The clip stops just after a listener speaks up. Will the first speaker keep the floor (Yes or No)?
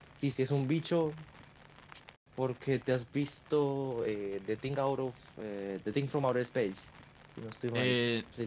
No